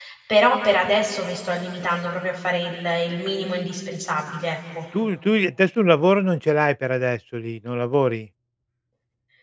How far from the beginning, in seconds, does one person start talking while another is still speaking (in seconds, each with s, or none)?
none